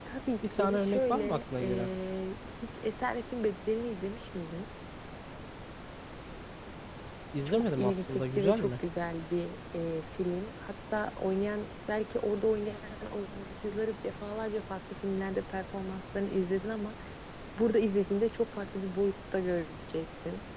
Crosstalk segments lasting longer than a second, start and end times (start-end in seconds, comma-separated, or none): 0.6-1.9, 7.5-8.7